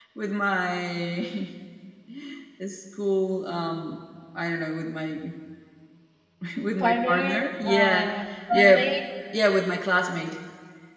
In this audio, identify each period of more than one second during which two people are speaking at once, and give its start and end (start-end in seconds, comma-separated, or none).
6.8-8.0